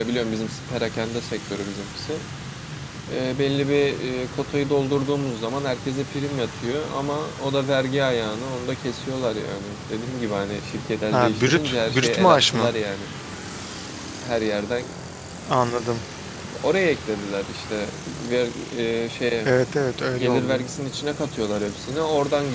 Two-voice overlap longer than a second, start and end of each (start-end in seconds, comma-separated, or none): 11.1-12.7